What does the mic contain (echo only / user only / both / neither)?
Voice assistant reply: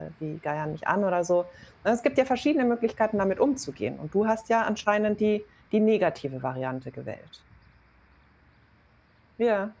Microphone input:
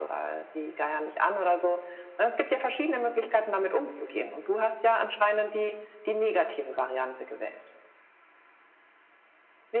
echo only